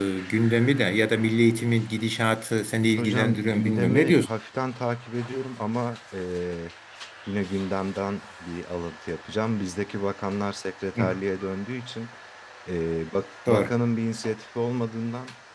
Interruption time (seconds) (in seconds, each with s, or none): 3.0 s